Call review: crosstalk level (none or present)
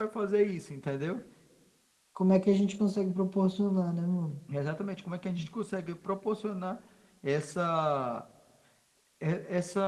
none